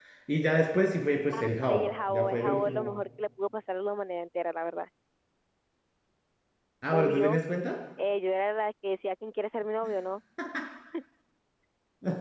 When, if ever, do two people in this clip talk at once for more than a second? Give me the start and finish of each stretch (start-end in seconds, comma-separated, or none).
1.6-3.0